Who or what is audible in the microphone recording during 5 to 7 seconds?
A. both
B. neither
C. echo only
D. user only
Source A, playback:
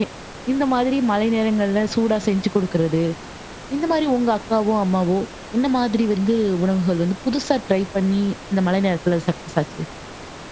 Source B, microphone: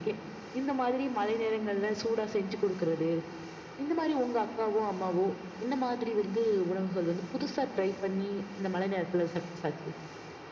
C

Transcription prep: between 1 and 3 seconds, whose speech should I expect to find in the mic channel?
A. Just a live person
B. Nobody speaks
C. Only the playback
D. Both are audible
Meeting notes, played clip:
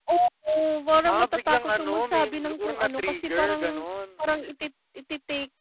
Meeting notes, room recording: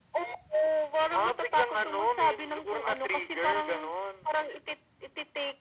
C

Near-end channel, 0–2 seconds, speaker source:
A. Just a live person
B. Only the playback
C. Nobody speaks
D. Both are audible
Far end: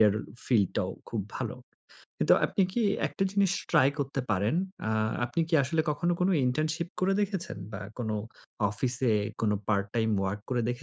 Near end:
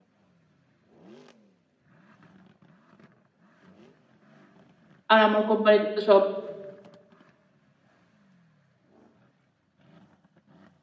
C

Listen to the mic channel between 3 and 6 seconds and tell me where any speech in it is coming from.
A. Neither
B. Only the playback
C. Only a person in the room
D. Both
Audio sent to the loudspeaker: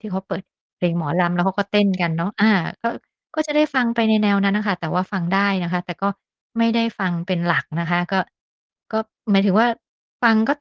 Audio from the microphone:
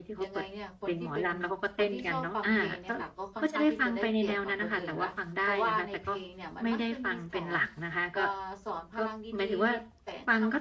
D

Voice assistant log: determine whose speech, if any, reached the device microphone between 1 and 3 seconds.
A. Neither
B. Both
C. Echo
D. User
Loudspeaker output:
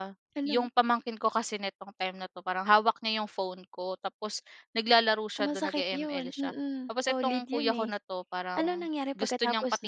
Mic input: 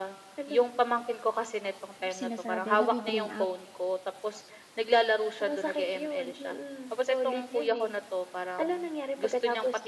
B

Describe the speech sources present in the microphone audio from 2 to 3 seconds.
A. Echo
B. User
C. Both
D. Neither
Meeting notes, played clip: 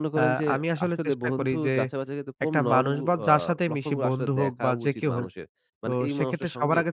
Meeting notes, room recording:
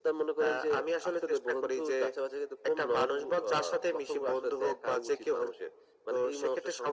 A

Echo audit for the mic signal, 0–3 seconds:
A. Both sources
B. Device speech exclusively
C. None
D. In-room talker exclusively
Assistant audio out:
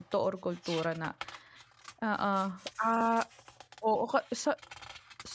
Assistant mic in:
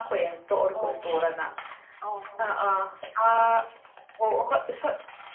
A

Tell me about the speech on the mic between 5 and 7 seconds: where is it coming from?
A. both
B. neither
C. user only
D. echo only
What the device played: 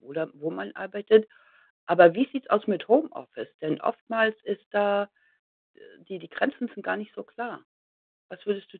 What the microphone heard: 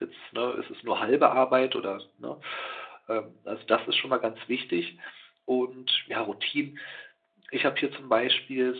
C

